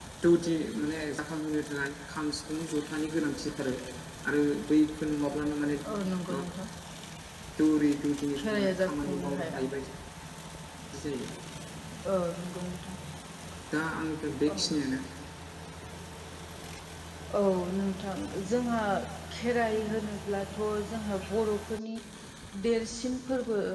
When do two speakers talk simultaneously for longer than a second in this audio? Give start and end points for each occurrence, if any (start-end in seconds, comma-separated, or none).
8.4-9.6